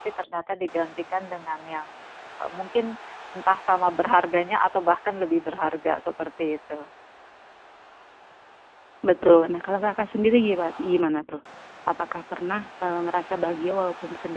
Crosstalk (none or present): none